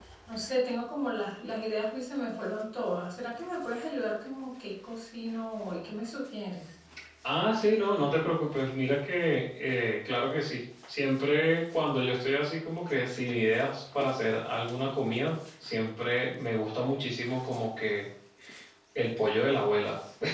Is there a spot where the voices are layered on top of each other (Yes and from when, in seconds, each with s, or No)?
No